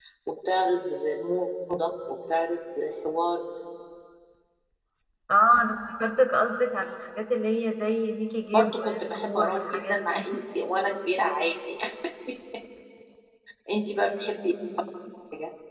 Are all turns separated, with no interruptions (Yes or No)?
No